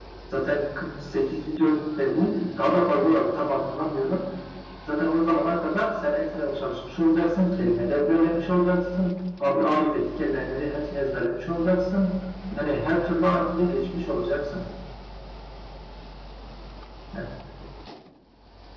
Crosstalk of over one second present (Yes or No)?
No